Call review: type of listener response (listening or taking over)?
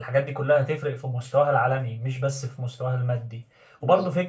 listening